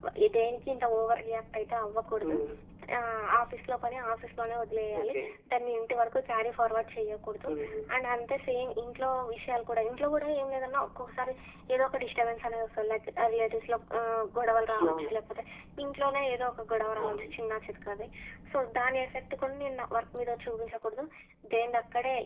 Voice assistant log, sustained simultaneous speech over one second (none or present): none